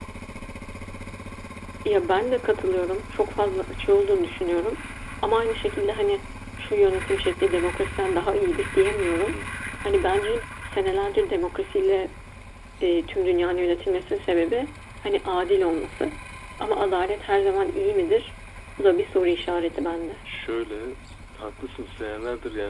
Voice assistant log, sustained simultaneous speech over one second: none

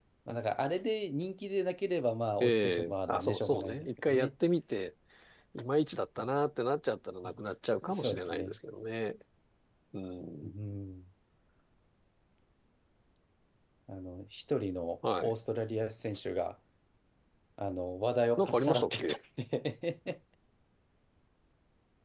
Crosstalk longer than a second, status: present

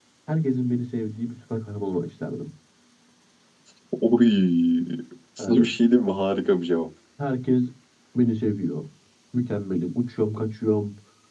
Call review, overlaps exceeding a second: none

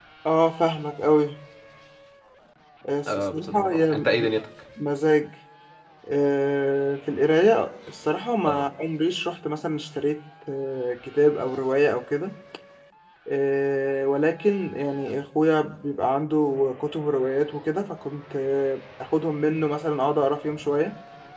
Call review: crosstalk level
present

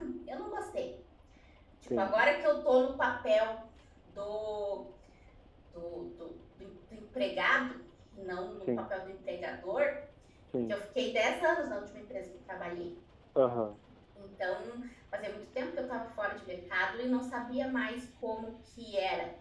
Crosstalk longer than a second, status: none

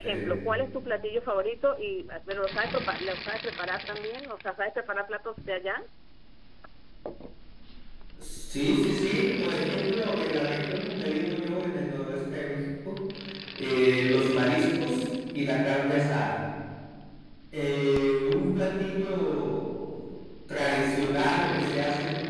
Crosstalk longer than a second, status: none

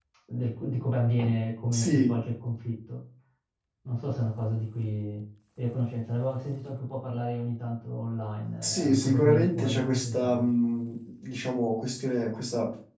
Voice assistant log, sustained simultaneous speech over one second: present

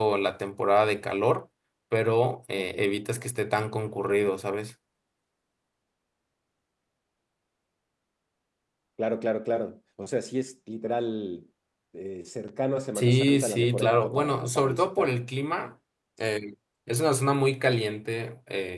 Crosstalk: present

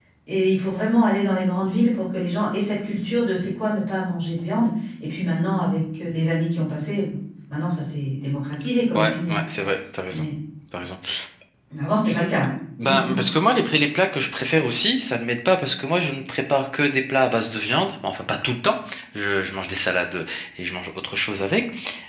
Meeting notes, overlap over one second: none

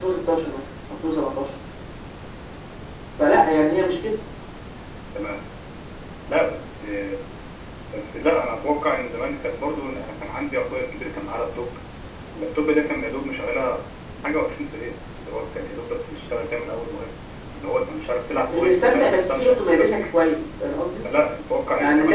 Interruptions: present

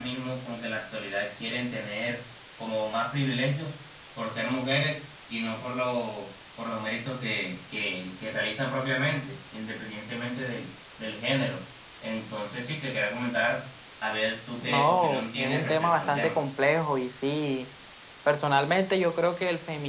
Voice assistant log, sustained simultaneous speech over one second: present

